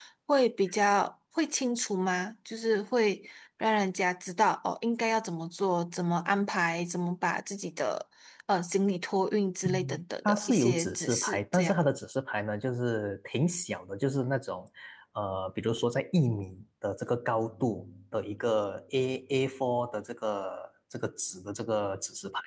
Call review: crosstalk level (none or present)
present